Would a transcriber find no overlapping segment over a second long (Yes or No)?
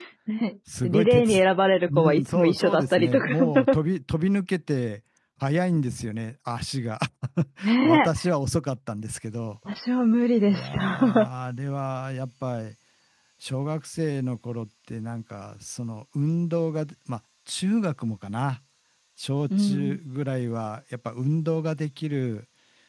No